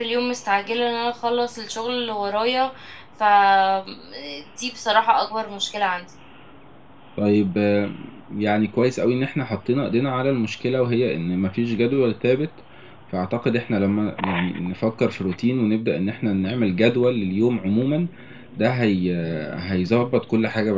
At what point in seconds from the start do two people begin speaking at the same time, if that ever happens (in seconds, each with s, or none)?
none